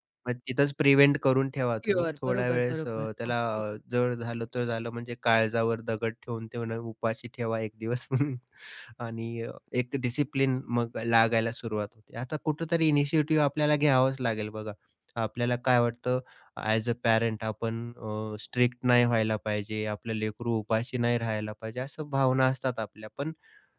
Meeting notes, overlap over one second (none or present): present